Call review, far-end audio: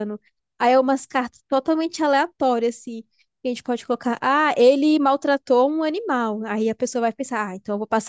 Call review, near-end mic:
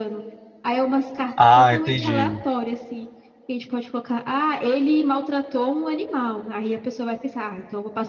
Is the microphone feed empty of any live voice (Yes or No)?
No